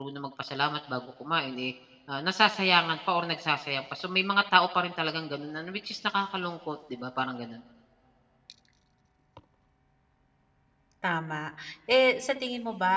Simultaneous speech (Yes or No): No